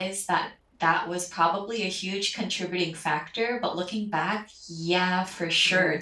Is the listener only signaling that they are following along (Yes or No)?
Yes